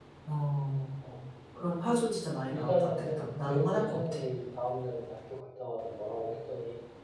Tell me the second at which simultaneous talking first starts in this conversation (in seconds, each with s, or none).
2.5 s